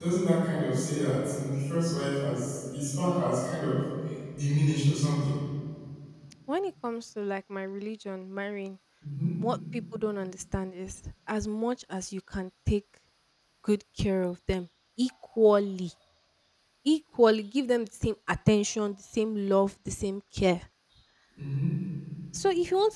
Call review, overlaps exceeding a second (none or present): none